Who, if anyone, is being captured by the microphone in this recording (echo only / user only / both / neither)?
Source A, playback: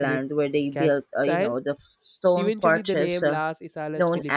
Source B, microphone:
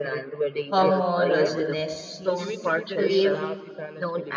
both